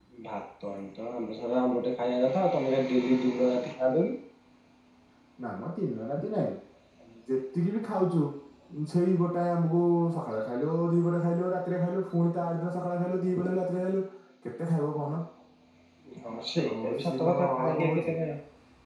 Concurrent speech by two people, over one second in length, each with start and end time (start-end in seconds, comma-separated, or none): 16.7-18.1